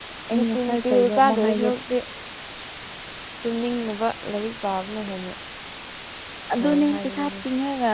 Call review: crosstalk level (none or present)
present